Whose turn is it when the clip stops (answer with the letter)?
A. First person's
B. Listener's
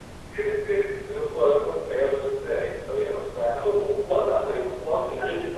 A